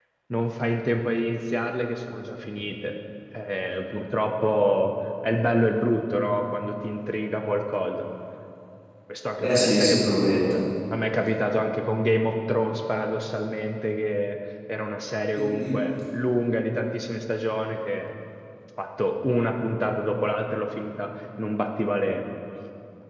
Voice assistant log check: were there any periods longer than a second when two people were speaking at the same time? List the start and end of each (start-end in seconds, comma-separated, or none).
9.4-10.6